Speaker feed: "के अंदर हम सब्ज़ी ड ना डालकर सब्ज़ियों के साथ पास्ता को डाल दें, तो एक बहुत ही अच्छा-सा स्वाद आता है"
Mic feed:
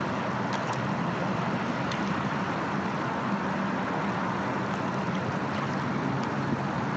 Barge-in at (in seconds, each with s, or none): none